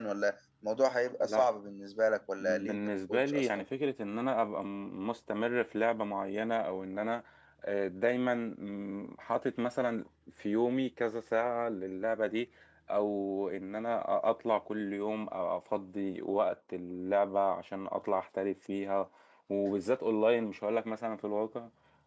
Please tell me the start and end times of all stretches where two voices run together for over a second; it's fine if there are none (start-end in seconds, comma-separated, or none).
2.4-3.7